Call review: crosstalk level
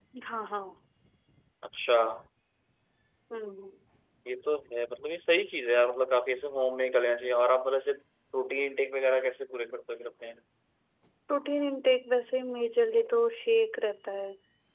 none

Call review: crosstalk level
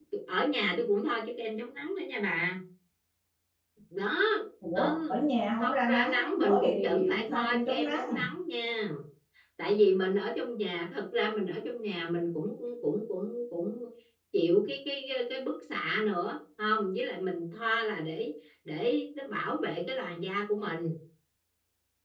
present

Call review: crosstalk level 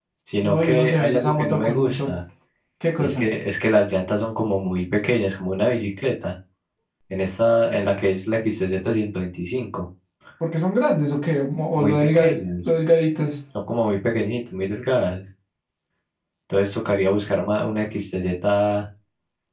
present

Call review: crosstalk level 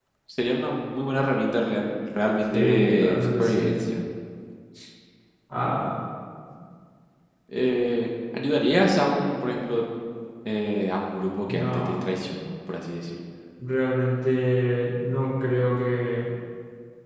present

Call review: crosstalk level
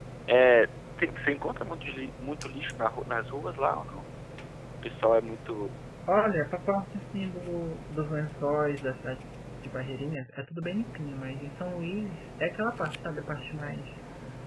none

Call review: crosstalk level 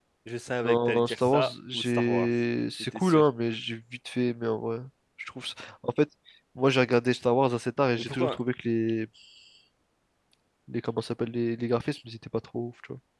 present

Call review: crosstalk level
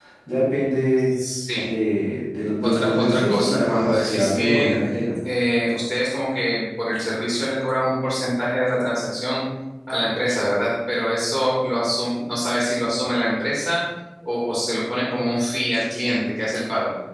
present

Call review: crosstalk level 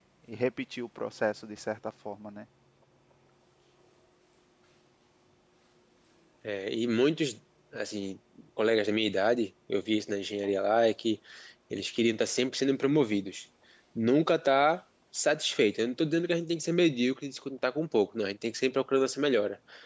none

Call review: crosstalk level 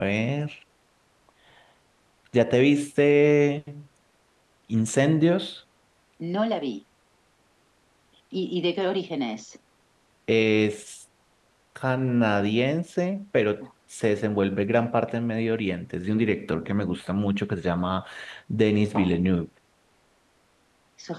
none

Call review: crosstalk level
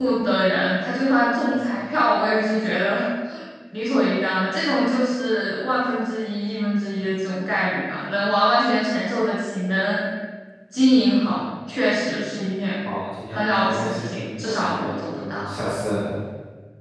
present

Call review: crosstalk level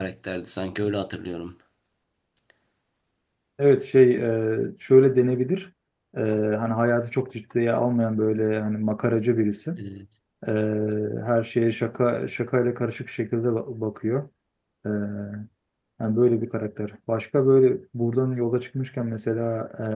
none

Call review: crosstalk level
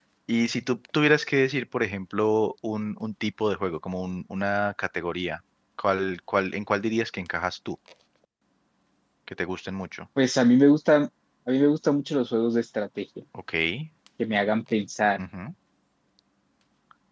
none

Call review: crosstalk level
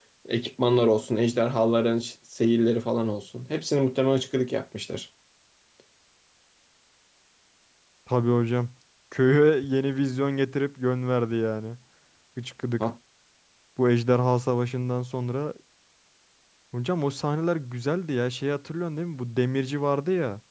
none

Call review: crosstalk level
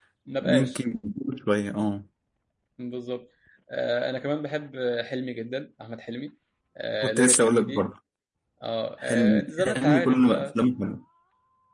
present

